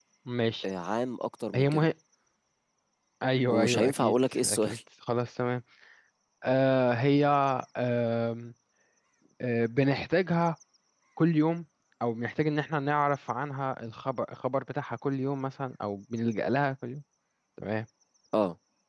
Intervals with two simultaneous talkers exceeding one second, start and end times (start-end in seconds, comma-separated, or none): 3.5-4.8